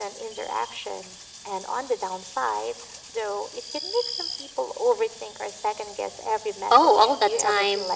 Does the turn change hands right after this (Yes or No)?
Yes